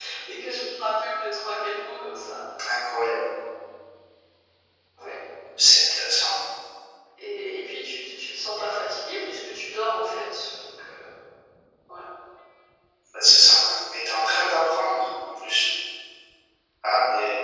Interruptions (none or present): none